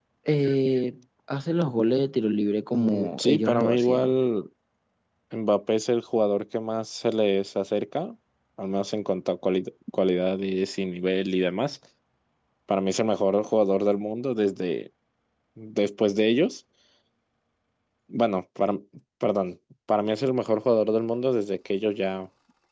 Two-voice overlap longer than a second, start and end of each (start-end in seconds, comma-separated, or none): 2.7-4.1